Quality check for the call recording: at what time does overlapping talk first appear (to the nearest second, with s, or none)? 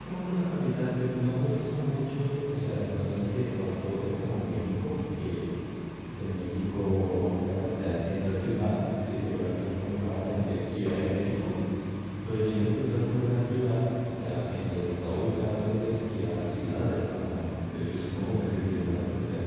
none